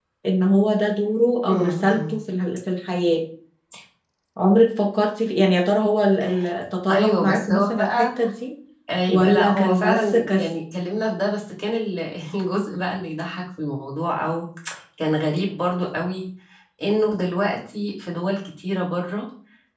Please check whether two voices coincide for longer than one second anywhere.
Yes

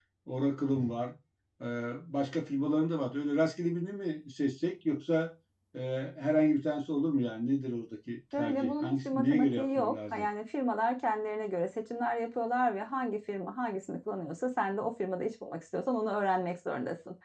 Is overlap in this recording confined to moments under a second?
No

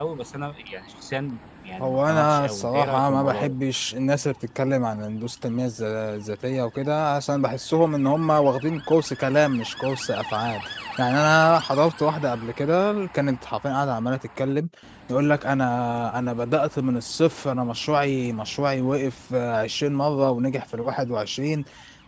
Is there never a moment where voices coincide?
No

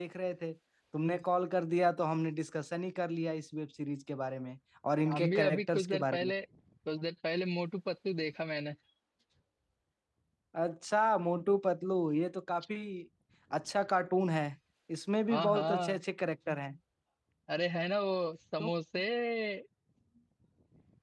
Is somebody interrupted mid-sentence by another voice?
Yes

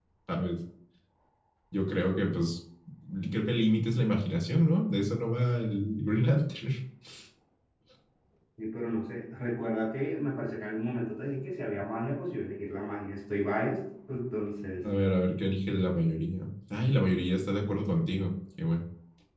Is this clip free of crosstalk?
Yes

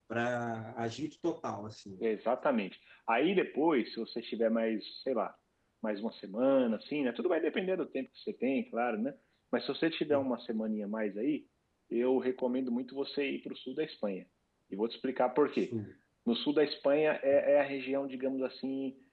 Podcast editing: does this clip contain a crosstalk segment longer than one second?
No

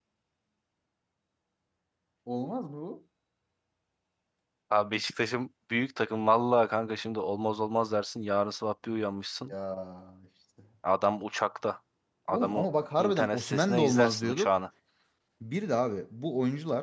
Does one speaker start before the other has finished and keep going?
Yes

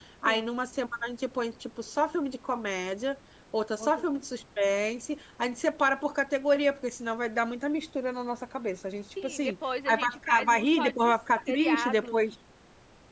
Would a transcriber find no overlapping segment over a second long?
No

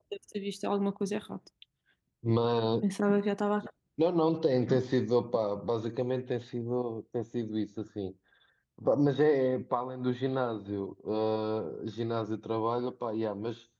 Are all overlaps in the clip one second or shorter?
Yes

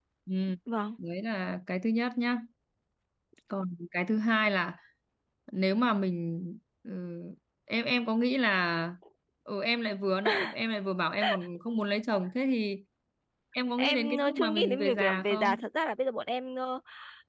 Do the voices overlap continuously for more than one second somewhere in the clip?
Yes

